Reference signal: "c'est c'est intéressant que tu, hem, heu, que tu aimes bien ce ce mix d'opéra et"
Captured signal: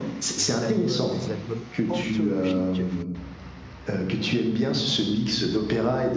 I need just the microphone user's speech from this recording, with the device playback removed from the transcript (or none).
des albums des albums anthologiques.